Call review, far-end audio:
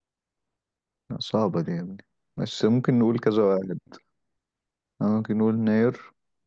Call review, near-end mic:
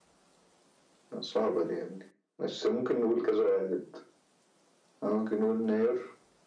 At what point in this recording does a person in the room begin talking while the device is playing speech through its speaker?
none

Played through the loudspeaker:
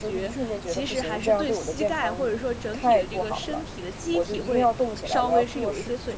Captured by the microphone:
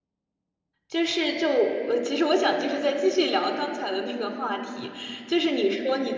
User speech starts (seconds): 1 s

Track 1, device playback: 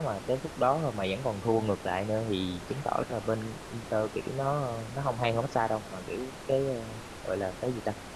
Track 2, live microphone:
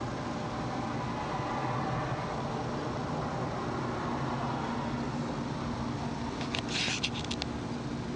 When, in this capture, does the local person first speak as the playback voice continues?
none

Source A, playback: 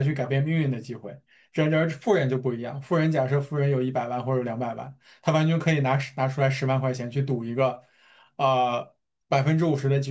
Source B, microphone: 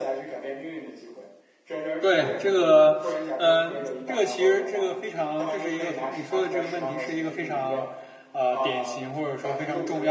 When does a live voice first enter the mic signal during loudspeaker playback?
2 s

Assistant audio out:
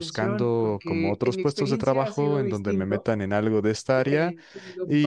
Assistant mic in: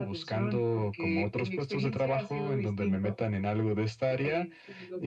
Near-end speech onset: none

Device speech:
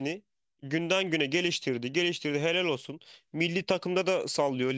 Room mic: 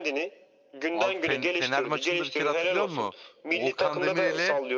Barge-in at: 1 s

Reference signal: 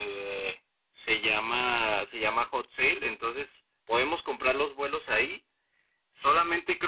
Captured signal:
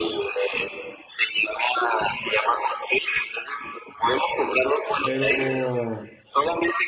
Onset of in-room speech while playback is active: 5 s

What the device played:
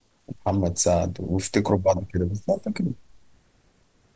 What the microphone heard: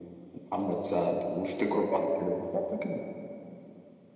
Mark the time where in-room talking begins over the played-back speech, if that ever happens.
none

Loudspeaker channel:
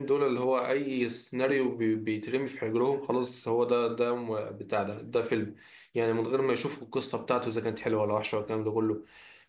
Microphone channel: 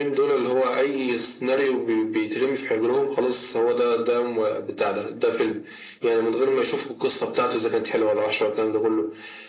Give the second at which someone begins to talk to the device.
none

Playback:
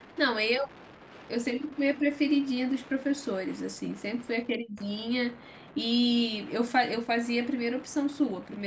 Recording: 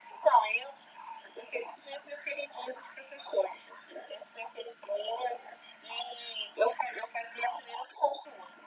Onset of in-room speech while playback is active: none

